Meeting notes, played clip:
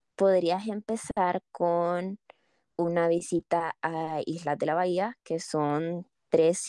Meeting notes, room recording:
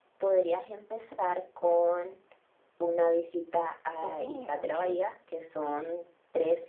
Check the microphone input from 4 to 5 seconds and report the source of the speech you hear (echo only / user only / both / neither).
both